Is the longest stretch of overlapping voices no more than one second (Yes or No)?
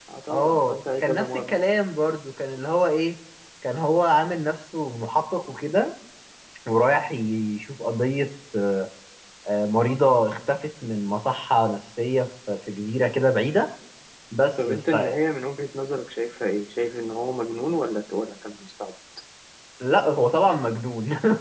No